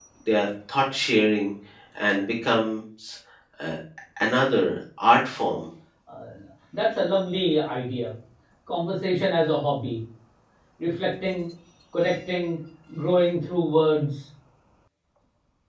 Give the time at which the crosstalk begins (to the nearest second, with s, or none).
none